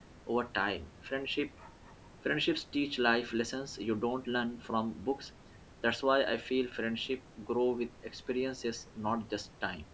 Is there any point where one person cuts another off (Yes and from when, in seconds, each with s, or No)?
No